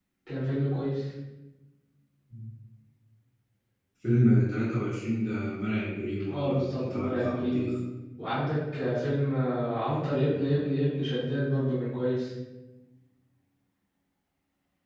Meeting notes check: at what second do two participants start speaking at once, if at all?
6 s

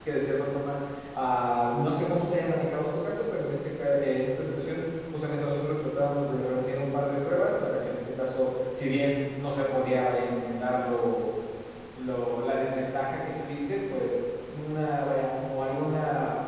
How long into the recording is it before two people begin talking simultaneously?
none

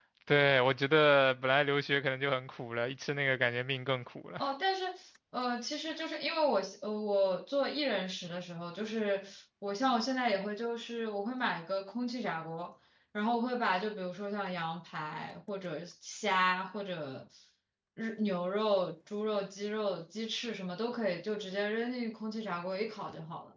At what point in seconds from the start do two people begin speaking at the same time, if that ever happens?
none

